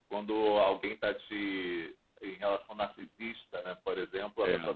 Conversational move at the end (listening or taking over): listening